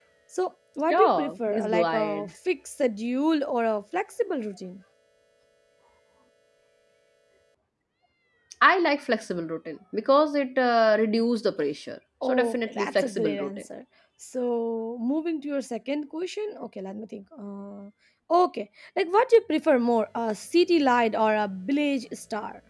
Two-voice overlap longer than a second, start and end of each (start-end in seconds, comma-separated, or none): 0.9-2.3, 12.2-13.7